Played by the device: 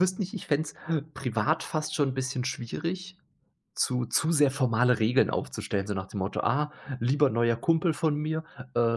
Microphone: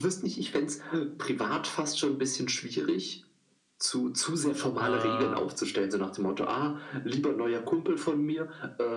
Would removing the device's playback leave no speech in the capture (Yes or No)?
No